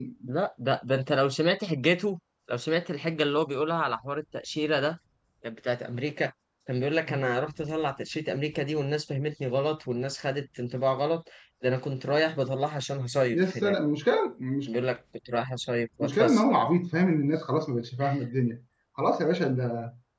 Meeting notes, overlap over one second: none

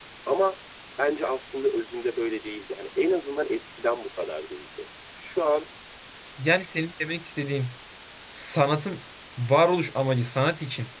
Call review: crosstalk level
none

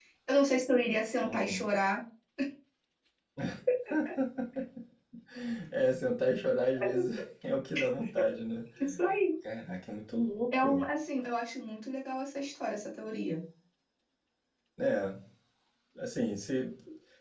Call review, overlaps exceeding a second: none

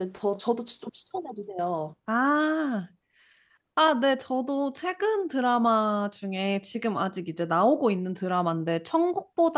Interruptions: none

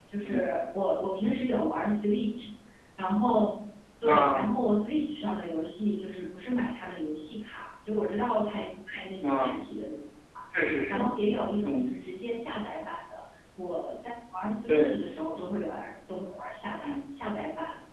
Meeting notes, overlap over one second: none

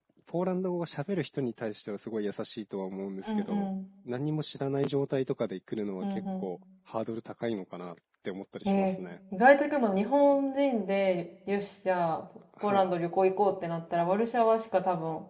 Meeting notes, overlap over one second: none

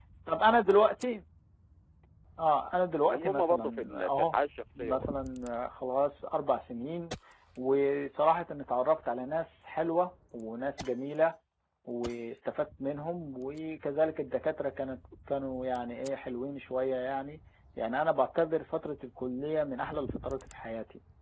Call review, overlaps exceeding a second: present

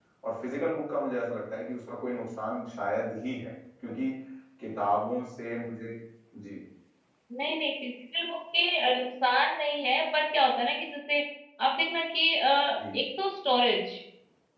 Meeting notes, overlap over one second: none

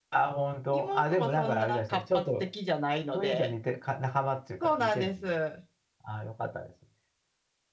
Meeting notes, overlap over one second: present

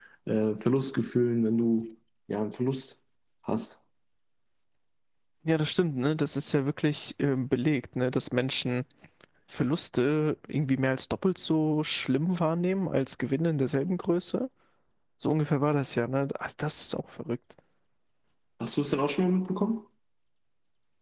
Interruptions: none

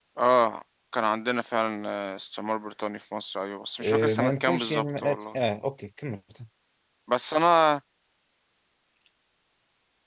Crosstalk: present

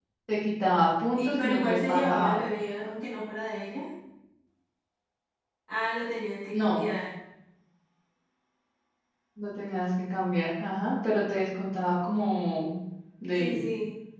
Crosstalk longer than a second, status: present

